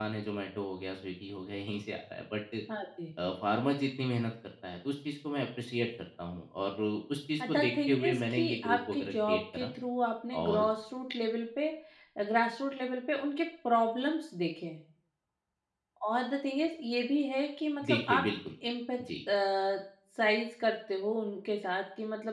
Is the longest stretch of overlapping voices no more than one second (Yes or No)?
No